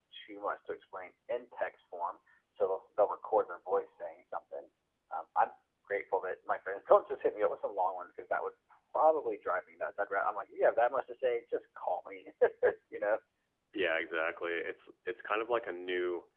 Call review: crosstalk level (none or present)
none